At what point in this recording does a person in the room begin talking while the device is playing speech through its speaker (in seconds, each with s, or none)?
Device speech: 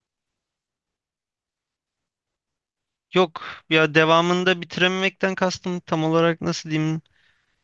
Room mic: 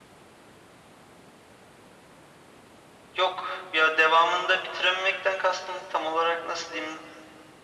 none